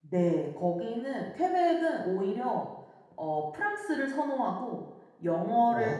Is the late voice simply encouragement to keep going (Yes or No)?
Yes